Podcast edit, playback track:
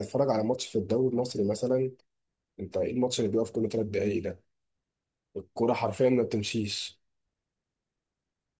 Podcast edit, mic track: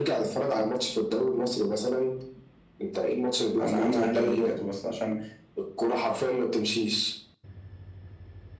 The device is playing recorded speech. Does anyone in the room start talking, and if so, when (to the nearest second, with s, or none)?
4 s